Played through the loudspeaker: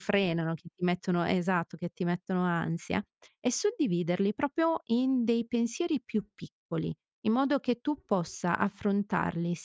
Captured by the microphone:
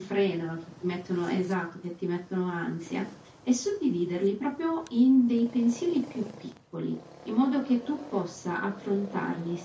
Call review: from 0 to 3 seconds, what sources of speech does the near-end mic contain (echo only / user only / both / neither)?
echo only